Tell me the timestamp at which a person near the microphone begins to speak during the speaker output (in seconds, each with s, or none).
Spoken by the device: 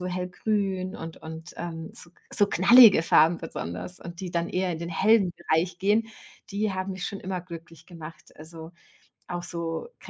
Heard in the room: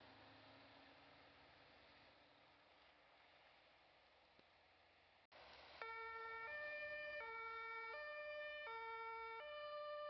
none